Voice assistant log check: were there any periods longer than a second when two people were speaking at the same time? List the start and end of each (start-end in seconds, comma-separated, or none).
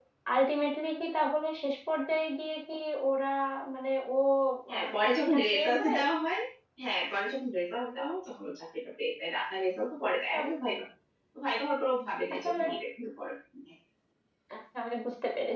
4.8-6.0